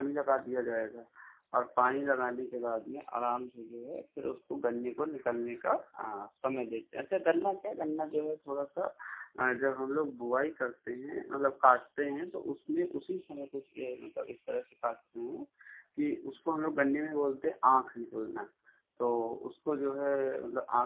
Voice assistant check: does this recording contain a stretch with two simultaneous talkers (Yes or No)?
No